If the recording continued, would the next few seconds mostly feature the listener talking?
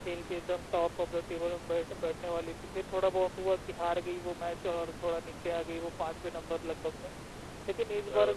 No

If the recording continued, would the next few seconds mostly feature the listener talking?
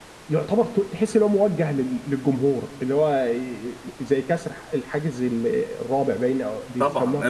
Yes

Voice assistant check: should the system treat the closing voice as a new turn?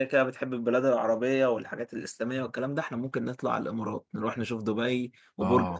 Yes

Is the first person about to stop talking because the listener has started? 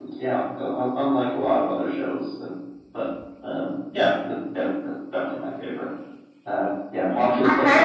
Yes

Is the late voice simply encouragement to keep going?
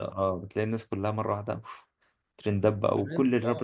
No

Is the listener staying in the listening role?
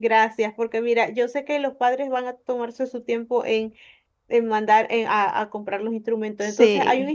Yes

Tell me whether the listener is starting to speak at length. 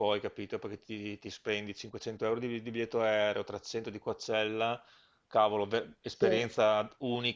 No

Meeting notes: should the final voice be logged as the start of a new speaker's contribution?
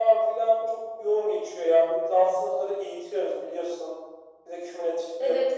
Yes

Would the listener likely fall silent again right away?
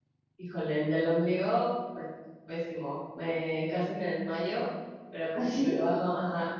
Yes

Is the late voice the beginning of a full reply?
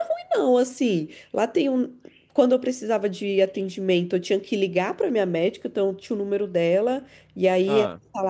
No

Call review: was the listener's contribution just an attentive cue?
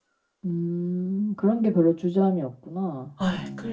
No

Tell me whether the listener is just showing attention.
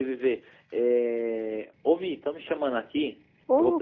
Yes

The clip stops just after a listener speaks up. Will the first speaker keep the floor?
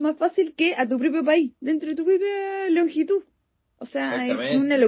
Yes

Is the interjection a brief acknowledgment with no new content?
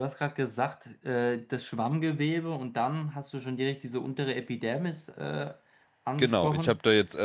No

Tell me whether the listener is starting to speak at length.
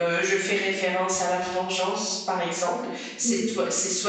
No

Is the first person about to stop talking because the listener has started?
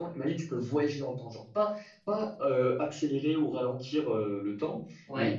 No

